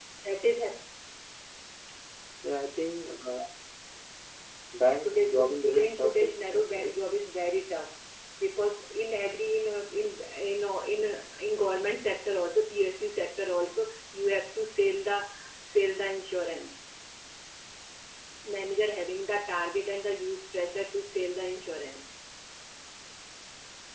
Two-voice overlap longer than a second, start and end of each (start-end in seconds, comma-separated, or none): 5.0-6.9